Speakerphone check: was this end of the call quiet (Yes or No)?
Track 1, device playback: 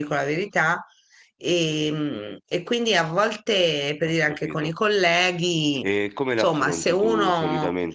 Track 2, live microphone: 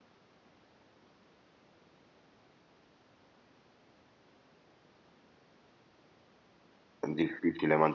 No